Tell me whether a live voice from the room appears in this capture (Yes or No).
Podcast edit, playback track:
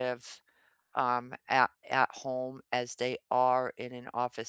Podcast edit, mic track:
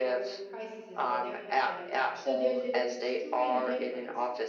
Yes